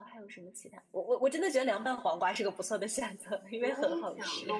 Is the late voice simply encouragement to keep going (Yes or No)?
No